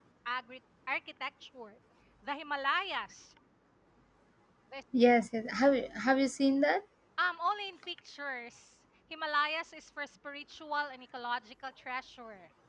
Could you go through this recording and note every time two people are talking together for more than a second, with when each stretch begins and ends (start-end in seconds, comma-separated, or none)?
none